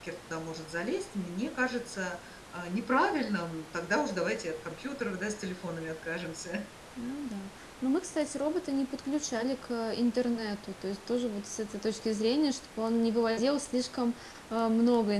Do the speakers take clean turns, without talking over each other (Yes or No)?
Yes